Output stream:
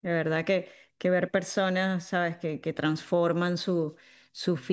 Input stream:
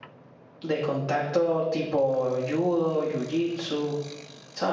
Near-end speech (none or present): present